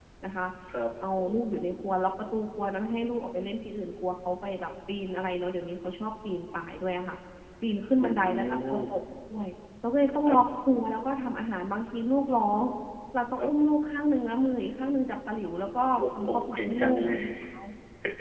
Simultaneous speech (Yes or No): Yes